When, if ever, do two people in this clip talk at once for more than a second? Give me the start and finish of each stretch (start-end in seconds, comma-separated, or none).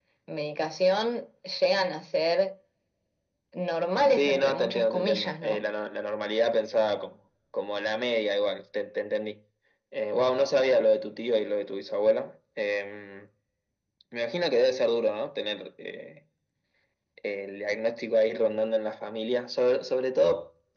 4.1-5.6